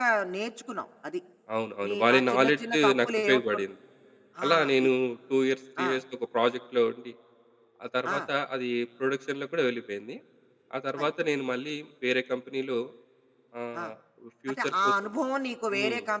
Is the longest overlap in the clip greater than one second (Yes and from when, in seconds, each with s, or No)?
Yes, from 1.8 s